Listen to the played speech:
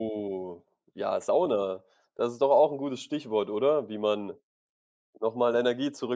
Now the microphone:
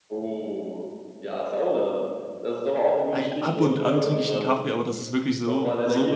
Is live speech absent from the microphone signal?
No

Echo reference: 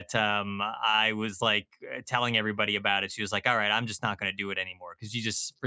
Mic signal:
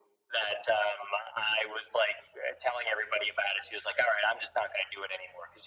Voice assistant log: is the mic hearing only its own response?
Yes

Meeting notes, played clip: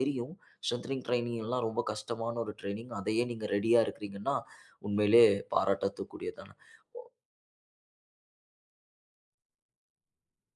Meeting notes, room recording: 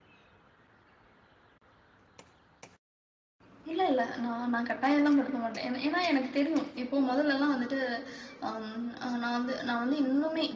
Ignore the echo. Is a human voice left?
Yes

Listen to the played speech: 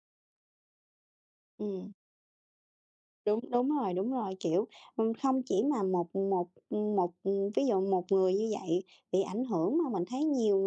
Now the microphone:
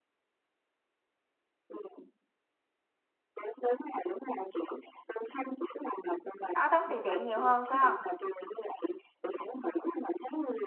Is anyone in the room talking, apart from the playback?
Yes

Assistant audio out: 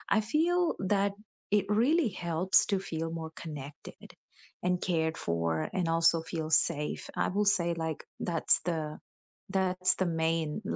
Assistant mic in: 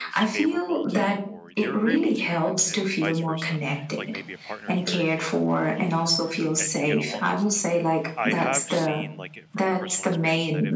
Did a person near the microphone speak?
Yes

